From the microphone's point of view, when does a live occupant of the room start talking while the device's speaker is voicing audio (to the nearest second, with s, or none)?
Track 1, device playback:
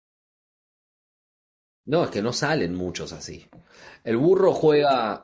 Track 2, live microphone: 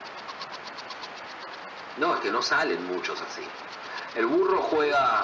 none